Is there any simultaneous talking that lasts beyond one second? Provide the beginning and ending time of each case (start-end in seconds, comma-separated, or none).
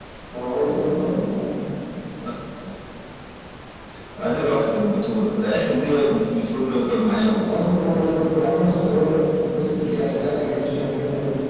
none